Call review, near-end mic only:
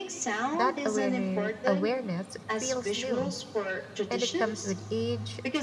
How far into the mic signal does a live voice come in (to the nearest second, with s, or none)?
1 s